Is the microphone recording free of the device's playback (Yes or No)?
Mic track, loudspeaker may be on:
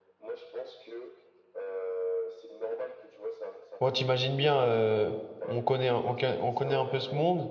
No